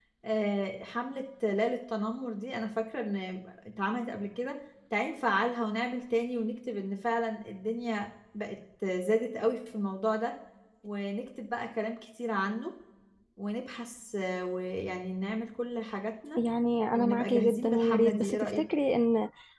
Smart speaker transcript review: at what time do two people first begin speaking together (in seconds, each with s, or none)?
16.9 s